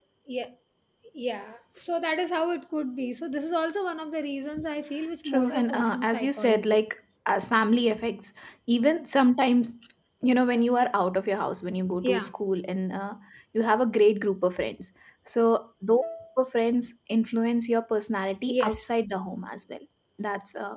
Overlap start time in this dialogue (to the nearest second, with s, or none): 5 s